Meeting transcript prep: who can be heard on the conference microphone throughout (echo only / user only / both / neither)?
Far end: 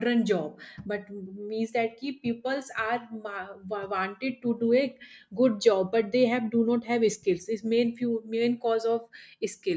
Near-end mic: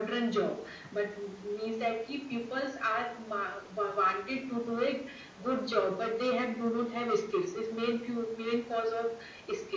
echo only